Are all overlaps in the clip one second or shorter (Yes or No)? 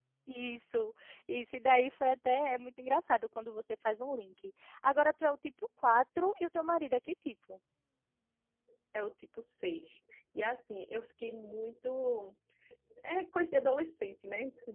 Yes